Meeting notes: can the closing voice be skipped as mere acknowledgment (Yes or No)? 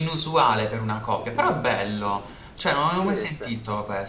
Yes